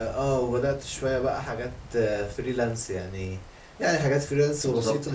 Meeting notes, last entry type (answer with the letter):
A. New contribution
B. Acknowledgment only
B